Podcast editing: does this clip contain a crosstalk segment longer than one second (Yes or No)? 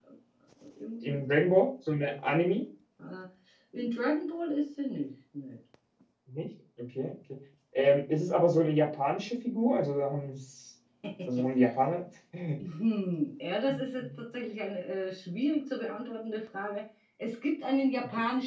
No